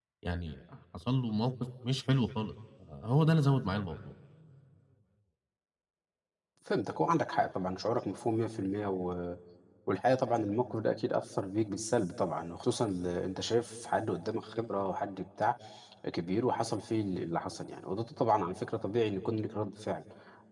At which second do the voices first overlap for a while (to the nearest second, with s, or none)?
none